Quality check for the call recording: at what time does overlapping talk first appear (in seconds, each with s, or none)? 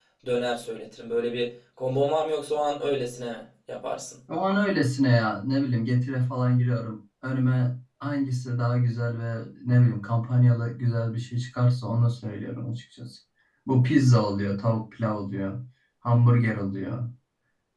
none